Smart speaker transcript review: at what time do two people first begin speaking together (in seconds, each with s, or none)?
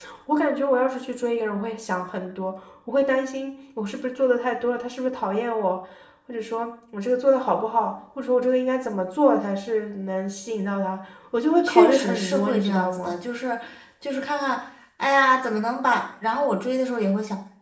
11.6 s